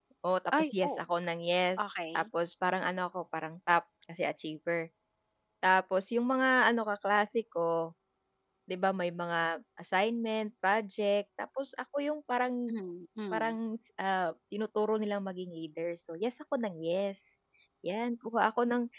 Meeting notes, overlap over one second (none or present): none